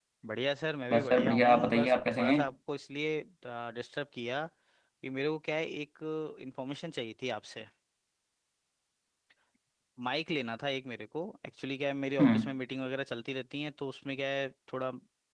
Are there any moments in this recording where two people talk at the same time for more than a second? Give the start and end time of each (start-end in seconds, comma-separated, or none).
0.9-2.4